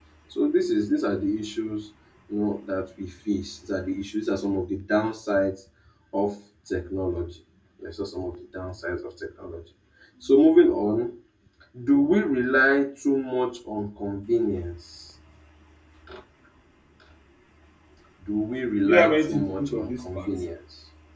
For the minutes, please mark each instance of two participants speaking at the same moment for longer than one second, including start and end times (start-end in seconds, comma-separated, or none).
18.9-20.3